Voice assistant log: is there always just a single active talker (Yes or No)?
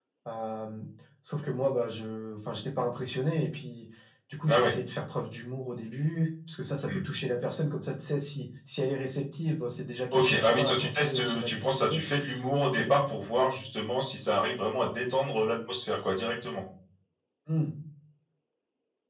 No